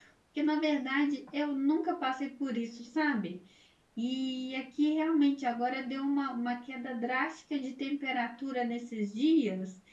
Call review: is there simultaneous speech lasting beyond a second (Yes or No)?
No